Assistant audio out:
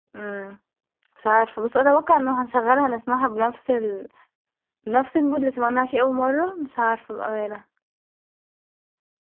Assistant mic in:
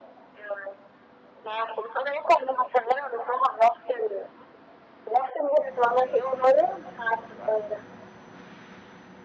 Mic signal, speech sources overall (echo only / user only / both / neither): echo only